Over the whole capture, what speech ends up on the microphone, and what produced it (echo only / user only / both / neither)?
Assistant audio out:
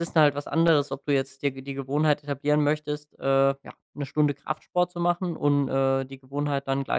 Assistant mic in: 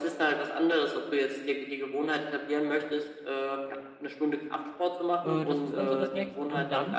both